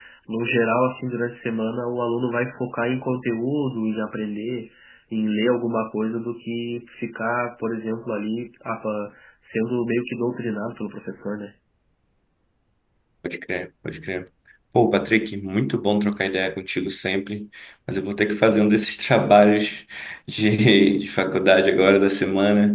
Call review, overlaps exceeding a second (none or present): none